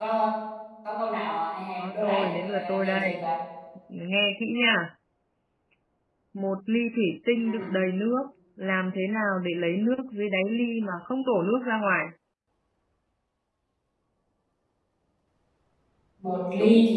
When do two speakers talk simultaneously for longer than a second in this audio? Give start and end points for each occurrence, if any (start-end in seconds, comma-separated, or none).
1.8-3.1